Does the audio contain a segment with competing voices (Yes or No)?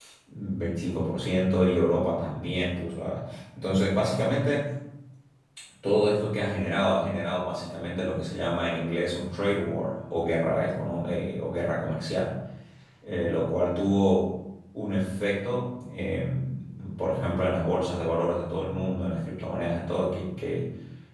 No